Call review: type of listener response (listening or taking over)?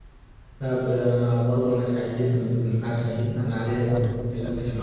listening